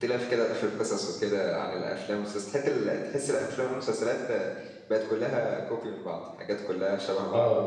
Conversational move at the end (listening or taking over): listening